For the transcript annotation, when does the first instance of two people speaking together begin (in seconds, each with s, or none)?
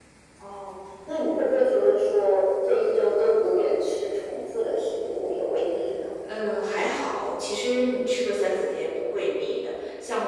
none